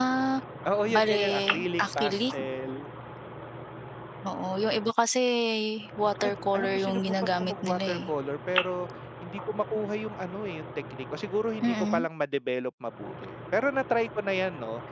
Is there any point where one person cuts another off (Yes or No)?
Yes